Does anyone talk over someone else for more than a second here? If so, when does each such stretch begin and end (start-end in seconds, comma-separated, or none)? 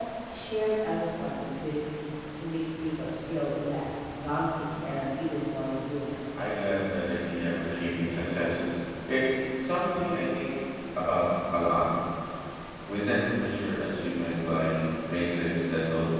none